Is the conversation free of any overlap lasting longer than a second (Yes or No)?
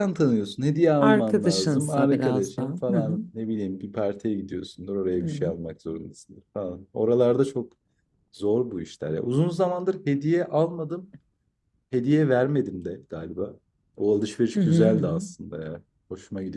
No